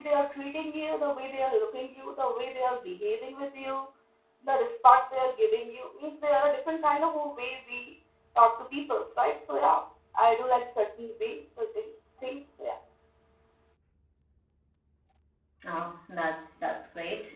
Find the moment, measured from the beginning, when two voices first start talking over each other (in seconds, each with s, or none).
none